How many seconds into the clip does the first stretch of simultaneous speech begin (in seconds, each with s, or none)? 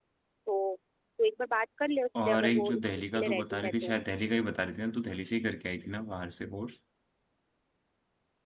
2.1 s